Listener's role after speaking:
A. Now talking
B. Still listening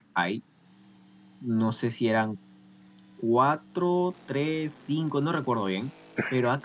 B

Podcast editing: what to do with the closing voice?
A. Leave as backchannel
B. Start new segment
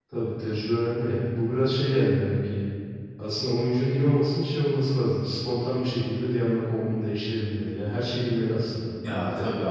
B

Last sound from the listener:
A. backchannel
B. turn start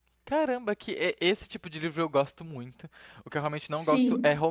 A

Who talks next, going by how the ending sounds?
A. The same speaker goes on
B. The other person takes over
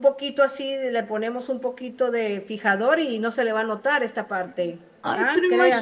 B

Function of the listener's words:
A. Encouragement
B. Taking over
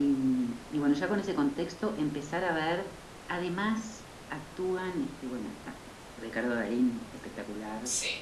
A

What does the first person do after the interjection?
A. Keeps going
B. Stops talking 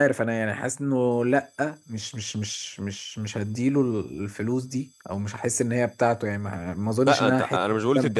B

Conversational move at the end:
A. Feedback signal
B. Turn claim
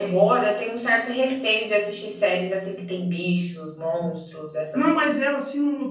B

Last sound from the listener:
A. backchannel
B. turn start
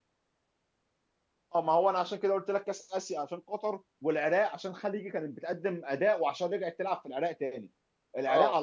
A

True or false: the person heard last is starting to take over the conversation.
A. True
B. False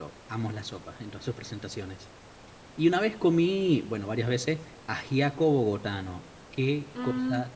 B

